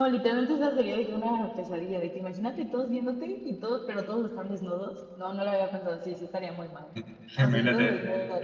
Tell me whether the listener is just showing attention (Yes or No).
No